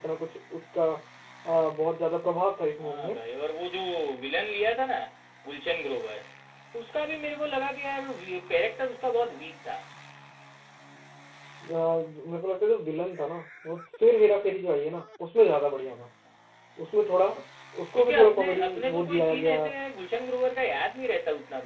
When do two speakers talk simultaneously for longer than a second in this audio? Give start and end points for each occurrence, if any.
18.0-19.6

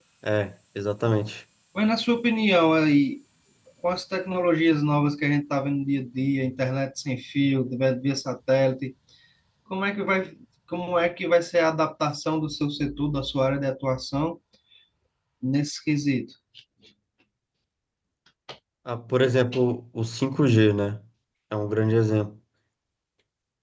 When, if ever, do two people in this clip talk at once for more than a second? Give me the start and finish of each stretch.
none

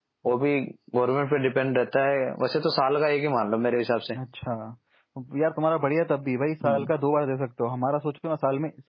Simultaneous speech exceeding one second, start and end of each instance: none

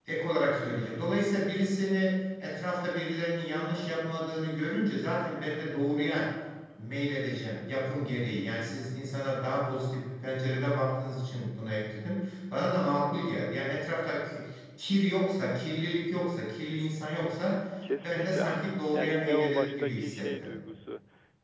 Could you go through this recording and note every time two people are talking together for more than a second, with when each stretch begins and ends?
18.0-20.5

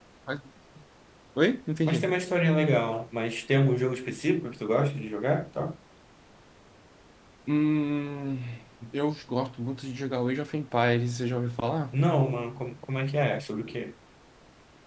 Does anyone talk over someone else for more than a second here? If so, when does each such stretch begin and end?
none

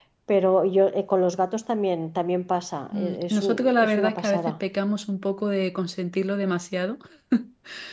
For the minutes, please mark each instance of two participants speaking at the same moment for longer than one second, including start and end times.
2.9-4.5

